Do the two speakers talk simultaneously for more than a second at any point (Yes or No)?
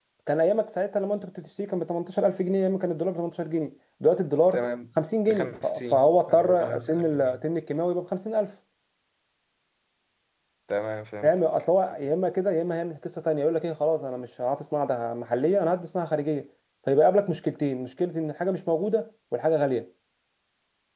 Yes